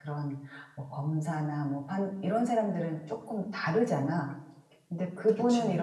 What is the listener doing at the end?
listening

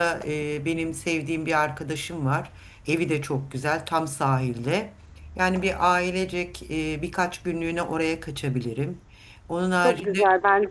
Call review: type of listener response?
taking over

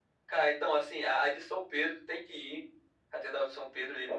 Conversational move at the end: listening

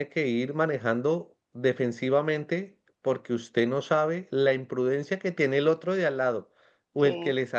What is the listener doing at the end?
listening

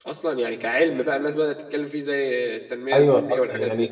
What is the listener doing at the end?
taking over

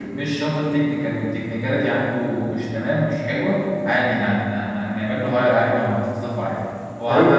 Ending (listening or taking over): taking over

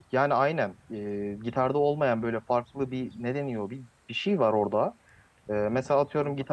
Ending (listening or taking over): listening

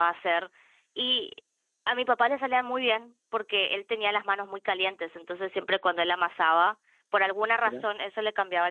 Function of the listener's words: listening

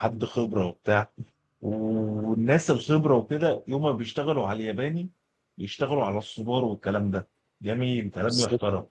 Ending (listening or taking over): listening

